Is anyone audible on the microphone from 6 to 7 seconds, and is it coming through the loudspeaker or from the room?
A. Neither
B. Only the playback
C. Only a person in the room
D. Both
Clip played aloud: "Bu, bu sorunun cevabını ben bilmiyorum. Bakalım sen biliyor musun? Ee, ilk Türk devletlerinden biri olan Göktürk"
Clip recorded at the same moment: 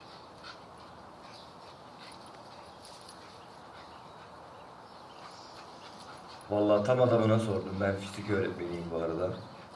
C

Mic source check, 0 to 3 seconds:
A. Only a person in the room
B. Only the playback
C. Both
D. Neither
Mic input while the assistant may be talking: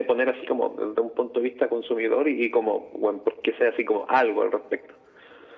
B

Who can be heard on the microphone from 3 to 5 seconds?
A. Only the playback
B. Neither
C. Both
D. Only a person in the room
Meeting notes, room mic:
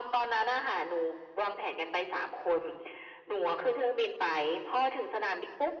A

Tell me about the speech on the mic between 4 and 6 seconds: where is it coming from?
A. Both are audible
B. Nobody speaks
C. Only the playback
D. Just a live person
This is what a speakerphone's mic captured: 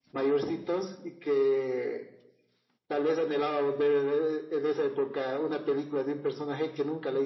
C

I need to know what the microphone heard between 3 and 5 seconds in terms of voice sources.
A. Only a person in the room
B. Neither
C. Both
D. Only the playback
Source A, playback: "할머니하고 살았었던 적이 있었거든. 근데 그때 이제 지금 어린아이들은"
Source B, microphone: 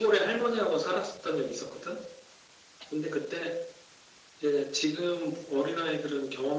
D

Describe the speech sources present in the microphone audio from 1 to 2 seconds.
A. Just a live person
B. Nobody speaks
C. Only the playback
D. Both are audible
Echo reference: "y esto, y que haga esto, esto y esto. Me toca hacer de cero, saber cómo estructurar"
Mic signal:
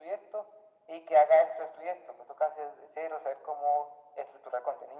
C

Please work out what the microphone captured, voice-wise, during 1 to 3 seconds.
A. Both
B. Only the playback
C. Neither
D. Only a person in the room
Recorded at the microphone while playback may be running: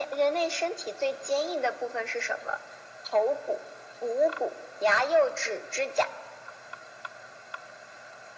B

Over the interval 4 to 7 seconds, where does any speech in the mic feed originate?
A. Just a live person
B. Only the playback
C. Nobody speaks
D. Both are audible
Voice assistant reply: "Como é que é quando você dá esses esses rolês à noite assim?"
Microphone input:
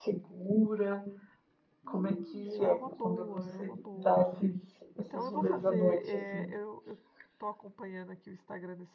D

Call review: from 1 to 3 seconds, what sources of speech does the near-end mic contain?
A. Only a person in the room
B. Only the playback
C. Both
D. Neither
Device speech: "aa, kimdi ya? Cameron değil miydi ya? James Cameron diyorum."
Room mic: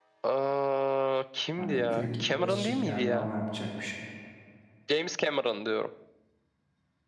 C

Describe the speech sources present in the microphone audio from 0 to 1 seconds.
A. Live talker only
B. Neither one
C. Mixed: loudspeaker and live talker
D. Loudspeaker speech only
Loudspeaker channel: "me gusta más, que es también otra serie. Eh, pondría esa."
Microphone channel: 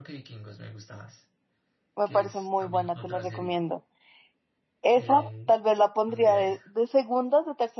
D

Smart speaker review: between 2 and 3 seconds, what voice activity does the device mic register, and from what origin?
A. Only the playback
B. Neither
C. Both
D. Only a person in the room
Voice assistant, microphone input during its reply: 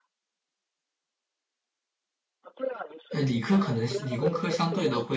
A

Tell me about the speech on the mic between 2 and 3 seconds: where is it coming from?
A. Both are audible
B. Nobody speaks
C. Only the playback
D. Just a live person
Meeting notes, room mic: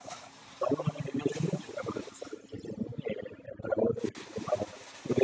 C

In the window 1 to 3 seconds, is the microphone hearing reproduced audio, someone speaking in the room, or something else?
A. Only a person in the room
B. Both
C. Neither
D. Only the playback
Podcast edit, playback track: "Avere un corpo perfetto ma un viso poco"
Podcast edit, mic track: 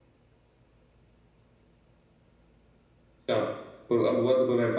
C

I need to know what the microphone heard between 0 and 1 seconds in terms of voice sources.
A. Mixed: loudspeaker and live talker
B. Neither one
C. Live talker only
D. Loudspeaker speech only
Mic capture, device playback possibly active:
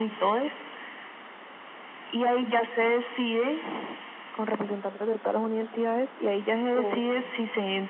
D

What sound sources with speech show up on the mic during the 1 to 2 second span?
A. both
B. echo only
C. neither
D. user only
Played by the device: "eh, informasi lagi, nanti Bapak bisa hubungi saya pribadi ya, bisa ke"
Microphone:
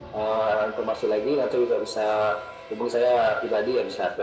B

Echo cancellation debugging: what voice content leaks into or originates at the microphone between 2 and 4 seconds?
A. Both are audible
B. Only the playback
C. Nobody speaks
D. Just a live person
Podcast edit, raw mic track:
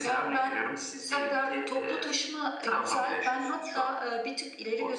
B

